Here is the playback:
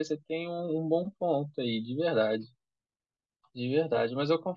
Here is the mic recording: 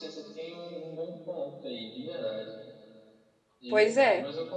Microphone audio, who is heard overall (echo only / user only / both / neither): both